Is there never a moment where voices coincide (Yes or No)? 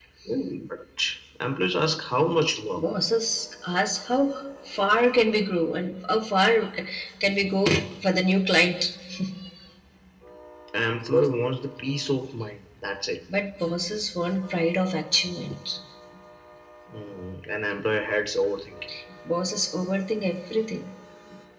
Yes